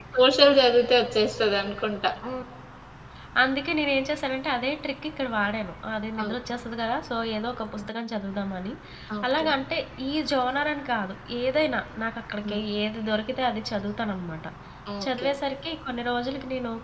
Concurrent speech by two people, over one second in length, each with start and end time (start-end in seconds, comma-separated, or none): none